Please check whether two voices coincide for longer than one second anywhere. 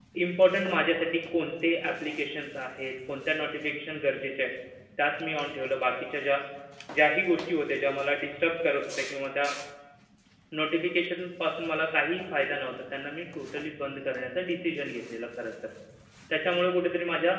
No

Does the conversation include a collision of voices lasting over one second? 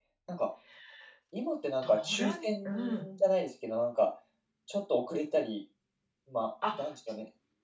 Yes, from 1.8 s

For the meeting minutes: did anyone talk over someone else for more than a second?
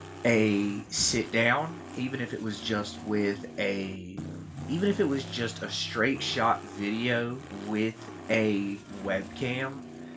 No

